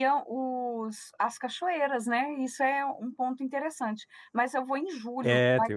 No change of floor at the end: Yes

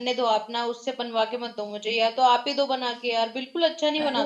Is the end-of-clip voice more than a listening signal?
Yes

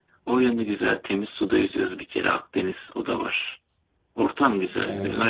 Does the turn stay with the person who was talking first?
Yes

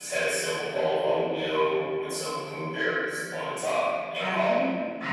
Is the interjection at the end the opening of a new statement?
Yes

